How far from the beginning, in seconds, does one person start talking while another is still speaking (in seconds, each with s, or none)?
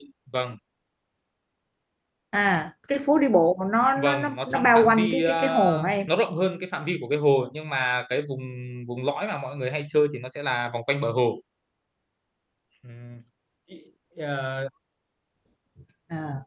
4.0 s